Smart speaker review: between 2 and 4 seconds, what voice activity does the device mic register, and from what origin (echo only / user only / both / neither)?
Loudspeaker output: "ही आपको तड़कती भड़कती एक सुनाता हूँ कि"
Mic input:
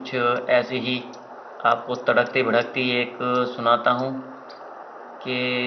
echo only